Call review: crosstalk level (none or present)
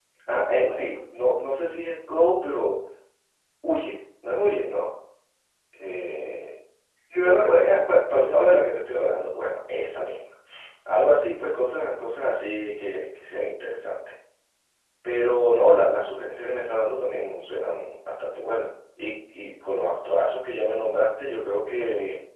present